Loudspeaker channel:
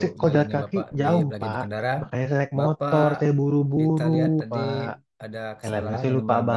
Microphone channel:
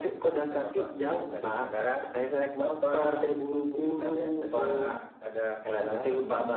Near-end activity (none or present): none